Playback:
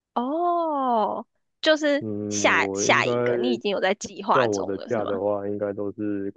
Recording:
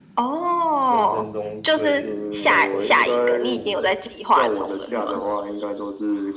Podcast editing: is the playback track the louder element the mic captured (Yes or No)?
Yes